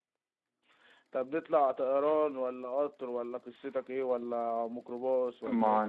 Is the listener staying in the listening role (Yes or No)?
No